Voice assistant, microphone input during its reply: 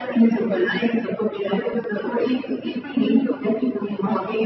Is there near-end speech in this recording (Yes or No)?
No